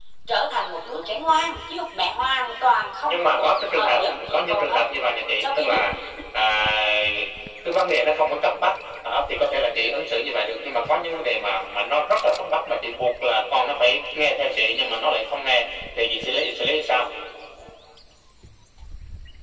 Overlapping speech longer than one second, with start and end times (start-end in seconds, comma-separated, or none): 3.1-4.8